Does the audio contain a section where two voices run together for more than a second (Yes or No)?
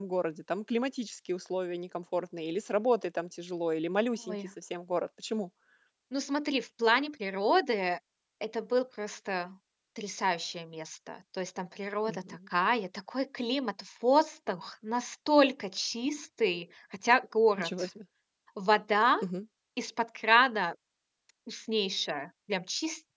No